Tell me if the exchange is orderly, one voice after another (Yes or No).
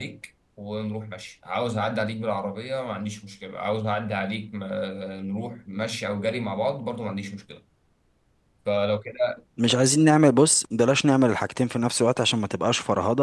Yes